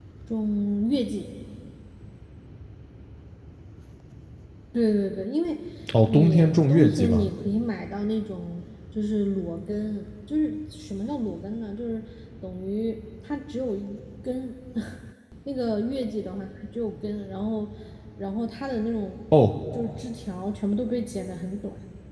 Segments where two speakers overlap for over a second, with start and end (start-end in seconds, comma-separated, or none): 6.1-7.3